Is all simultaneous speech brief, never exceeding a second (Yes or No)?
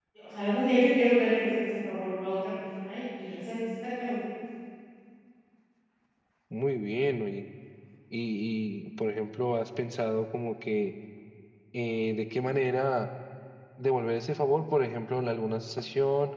Yes